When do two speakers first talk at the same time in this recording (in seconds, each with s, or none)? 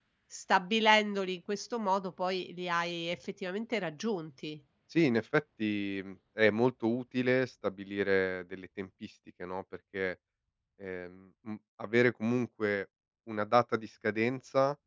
none